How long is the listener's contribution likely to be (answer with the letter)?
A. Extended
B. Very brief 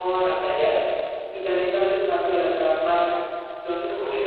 B